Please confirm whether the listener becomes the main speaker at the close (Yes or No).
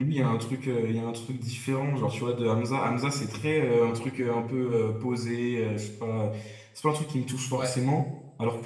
No